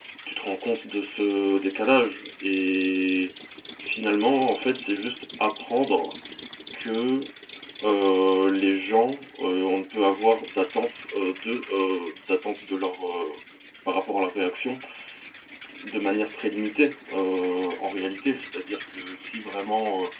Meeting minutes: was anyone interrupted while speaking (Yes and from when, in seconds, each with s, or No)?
No